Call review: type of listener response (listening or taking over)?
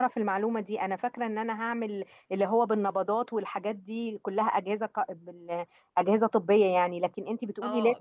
taking over